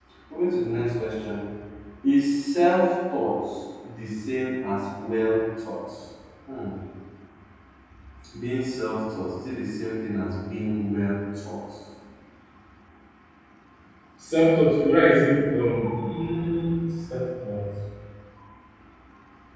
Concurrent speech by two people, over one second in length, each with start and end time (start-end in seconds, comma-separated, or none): none